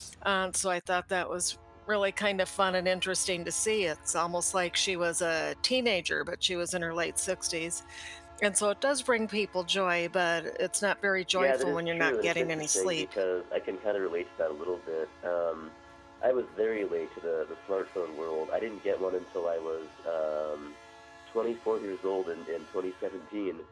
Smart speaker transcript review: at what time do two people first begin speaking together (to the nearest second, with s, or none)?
11 s